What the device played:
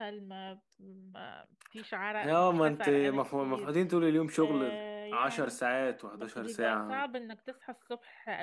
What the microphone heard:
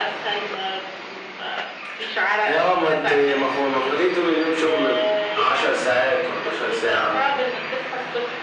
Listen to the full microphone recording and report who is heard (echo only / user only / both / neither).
echo only